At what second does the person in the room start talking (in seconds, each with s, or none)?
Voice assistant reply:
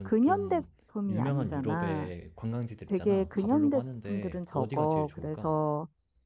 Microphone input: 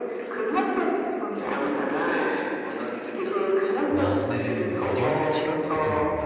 3.9 s